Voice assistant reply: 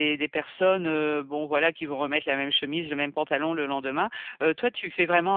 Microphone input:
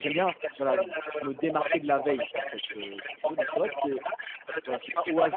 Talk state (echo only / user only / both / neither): both